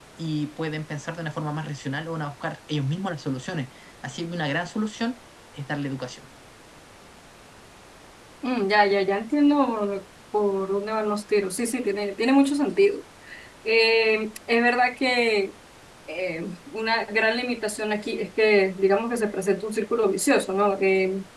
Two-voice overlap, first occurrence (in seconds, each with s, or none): none